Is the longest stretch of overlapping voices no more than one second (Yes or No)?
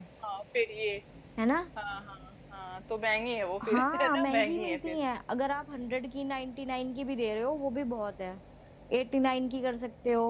No